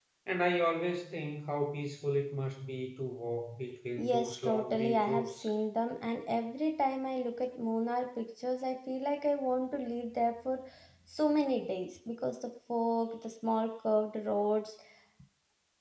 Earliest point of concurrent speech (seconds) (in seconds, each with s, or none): 4.0 s